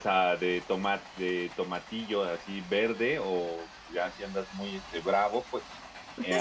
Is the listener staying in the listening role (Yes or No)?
No